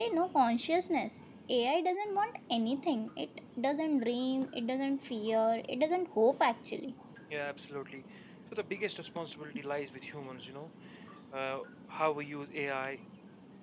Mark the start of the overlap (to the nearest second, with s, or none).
none